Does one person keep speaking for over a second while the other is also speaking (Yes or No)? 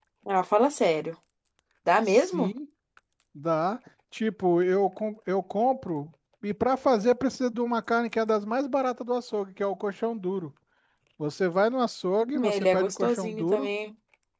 Yes